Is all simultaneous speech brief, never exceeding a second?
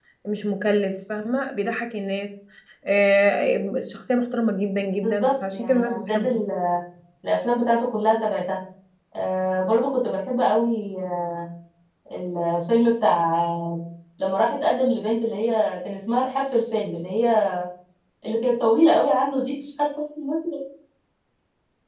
No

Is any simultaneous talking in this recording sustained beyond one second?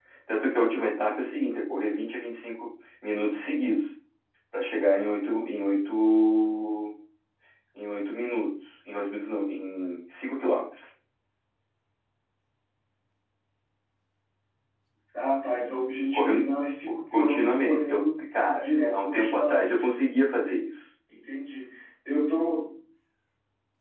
Yes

